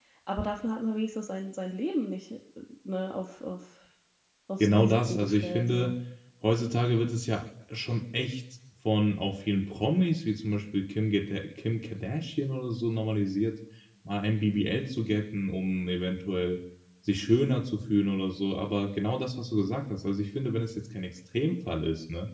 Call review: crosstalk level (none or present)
present